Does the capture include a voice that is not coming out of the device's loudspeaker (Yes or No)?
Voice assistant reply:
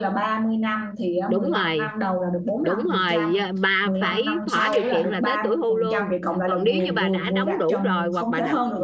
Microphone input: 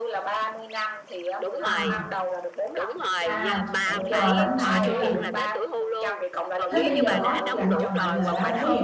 Yes